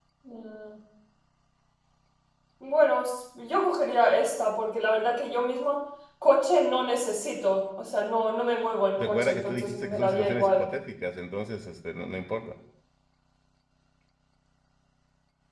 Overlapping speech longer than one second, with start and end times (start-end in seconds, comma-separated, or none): 9.0-10.6